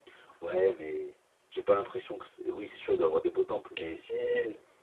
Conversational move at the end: taking over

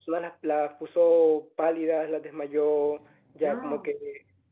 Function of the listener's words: listening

